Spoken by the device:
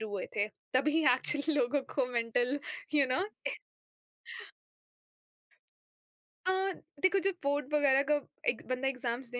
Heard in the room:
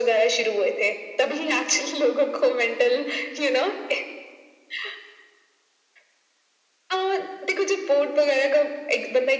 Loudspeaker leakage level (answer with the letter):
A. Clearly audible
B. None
A